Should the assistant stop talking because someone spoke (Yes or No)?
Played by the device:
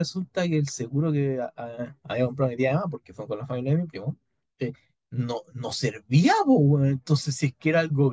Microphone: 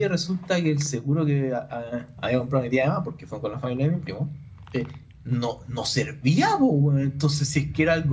No